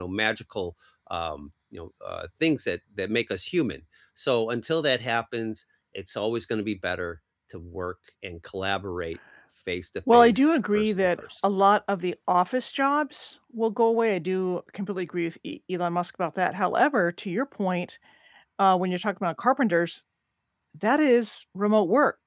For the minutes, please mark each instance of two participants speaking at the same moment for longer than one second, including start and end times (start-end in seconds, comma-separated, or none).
10.1-11.5